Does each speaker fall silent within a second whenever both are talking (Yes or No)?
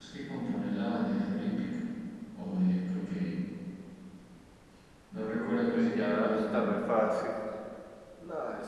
No